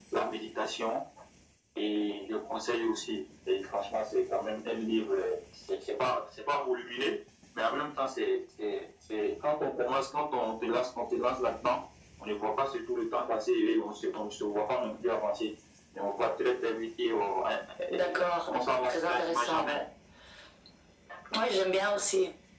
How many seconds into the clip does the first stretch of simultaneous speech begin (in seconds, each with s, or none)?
17.9 s